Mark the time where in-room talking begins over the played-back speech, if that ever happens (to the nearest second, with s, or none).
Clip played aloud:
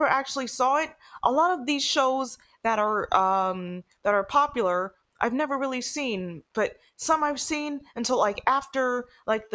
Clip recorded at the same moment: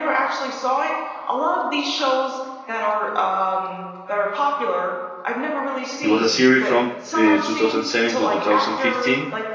6 s